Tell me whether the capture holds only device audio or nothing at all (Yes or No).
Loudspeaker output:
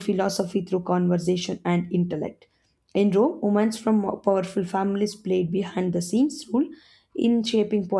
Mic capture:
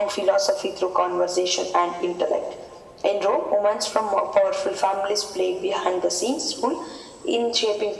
Yes